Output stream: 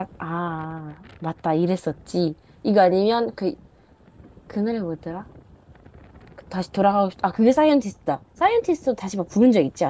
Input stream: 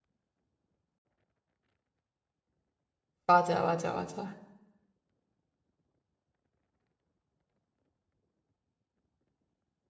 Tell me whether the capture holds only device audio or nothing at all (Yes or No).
No